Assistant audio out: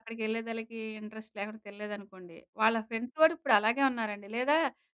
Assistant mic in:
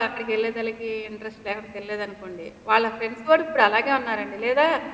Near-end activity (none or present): none